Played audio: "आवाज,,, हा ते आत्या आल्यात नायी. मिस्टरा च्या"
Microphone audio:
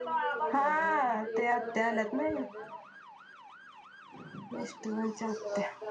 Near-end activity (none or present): present